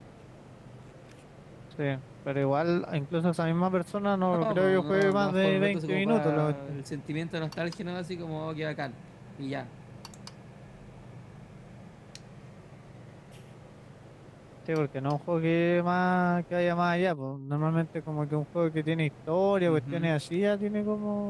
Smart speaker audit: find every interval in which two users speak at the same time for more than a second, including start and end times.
4.2-6.8

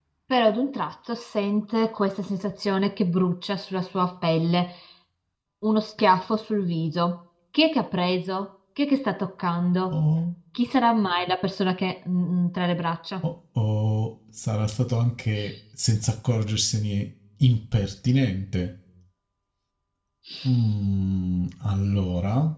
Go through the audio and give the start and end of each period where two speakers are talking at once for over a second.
none

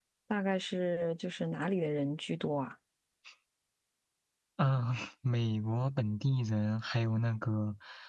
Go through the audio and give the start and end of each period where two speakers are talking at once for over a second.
none

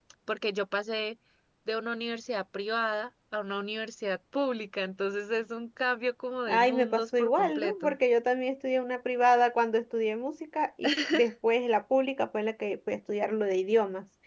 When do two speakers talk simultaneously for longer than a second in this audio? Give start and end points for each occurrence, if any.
6.5-8.0

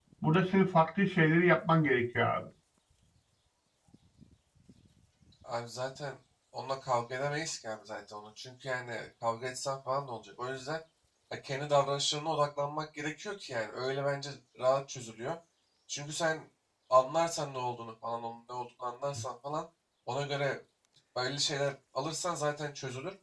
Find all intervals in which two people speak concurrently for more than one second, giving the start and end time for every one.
none

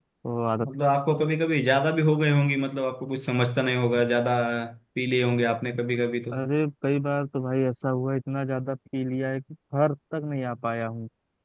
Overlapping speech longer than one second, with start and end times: none

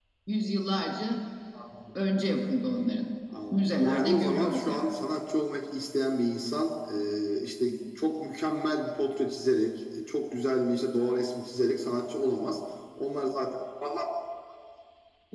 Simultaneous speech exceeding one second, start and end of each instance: 3.5-4.8

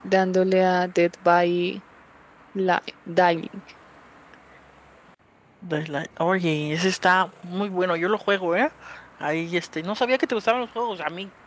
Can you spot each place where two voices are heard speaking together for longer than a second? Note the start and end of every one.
none

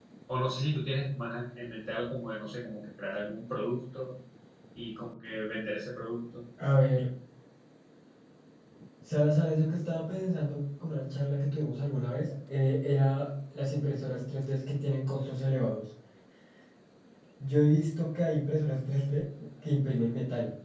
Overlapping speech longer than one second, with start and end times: none

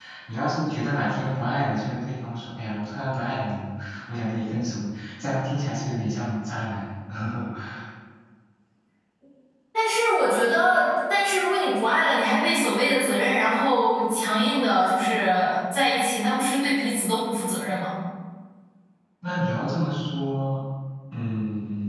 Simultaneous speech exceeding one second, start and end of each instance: none

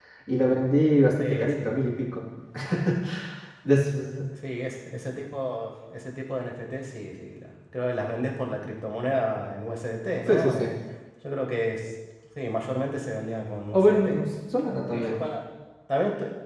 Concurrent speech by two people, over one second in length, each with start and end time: none

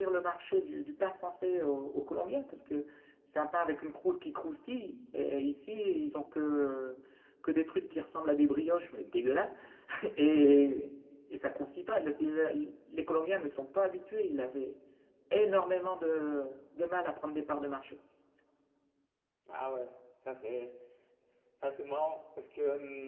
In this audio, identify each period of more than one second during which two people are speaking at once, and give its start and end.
none

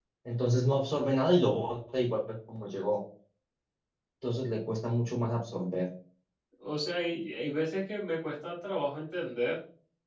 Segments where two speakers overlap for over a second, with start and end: none

